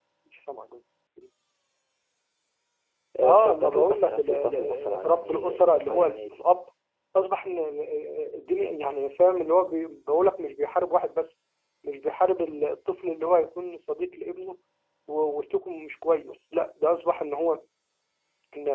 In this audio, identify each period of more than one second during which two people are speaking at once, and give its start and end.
3.2-6.4

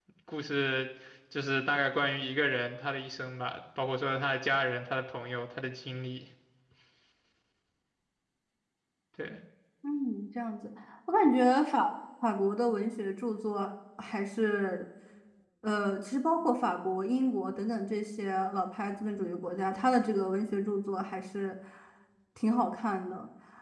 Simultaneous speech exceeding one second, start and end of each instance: none

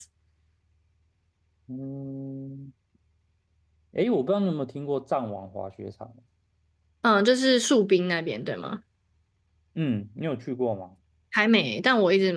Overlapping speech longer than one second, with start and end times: none

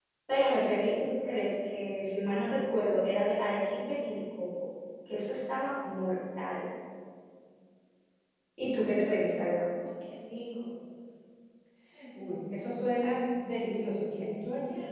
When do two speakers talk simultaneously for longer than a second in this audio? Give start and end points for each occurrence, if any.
none

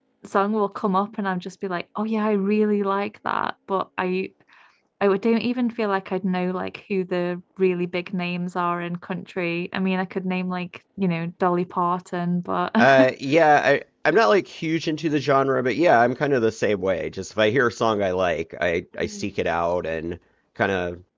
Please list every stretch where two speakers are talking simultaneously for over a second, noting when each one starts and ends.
none

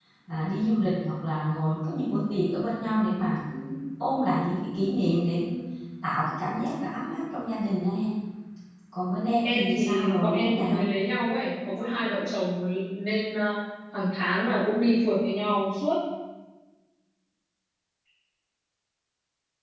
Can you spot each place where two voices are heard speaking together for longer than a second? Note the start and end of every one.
9.4-10.8

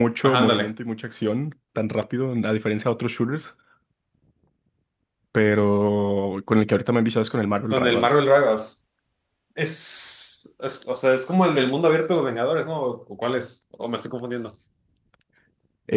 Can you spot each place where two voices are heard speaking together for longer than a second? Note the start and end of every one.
none

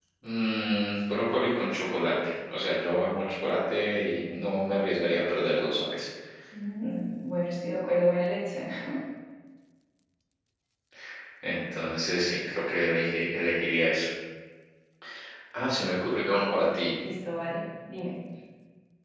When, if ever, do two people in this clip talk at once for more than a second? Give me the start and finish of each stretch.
none

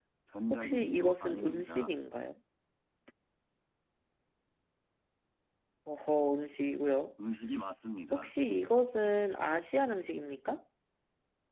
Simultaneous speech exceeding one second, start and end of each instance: 0.5-1.9

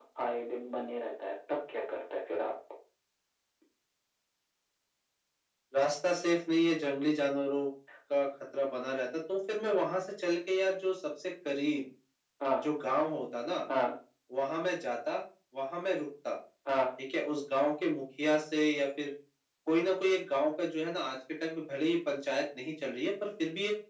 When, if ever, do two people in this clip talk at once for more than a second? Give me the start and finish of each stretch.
none

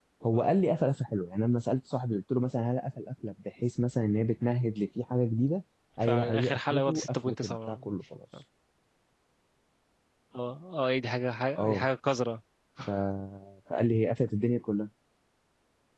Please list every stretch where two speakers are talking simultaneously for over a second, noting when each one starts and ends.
6.0-7.8

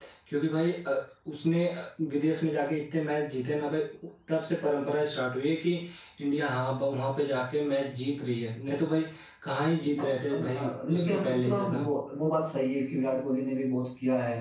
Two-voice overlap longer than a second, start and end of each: 10.0-11.8

